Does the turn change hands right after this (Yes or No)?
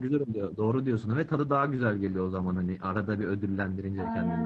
Yes